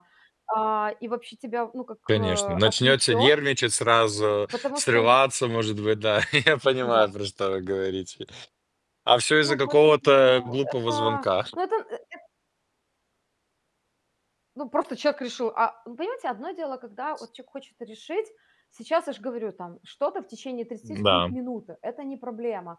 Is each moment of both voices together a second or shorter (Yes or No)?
No